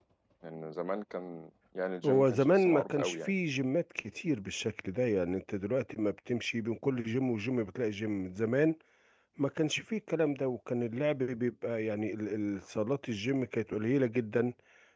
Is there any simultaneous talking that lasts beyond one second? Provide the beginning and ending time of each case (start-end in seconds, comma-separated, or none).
2.0-3.3